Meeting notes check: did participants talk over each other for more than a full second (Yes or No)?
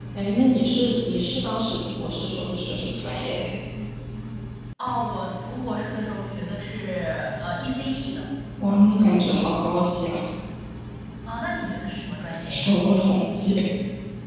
No